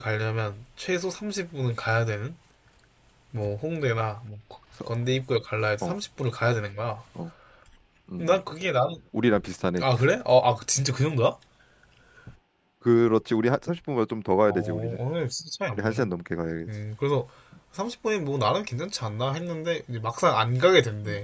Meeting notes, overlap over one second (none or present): none